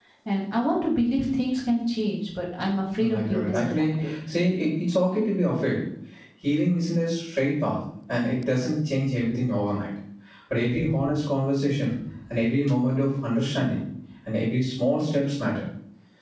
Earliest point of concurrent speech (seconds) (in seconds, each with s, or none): 3.0 s